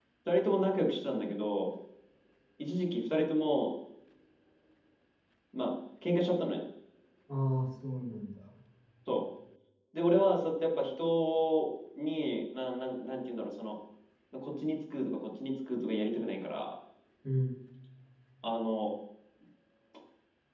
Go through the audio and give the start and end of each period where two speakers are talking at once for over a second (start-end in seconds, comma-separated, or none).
none